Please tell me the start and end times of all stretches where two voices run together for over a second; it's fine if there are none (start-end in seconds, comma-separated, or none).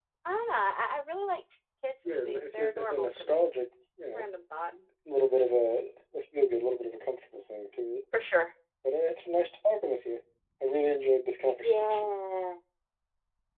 2.1-3.5